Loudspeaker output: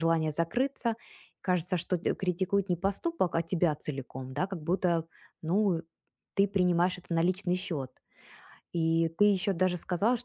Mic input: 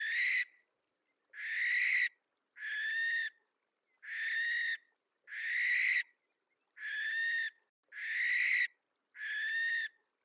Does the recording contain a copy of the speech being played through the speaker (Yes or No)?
No